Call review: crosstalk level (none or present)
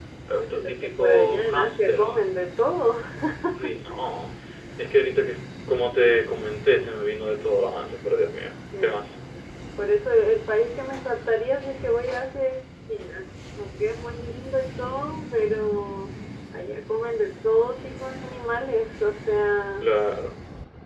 present